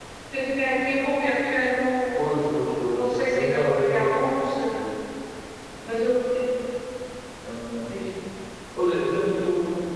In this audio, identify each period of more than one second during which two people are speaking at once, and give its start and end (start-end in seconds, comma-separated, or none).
2.9-4.1